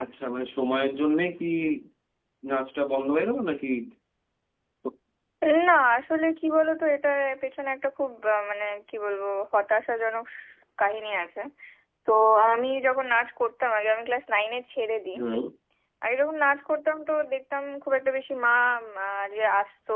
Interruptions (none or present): none